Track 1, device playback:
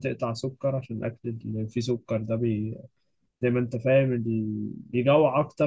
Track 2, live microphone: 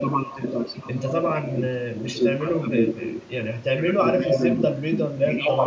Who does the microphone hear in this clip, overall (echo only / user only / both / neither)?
both